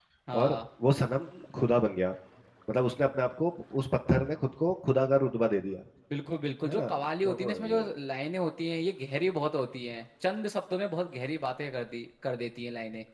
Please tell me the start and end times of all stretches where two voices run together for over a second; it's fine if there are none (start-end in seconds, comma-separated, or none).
6.7-8.0